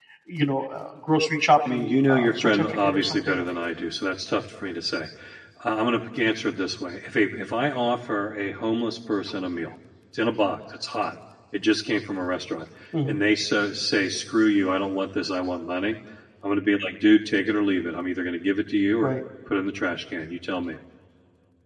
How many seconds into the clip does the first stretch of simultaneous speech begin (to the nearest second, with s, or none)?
2 s